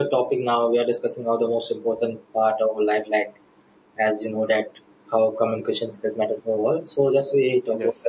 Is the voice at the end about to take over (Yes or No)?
No